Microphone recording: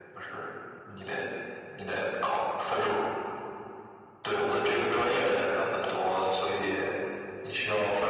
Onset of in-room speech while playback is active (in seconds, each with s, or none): none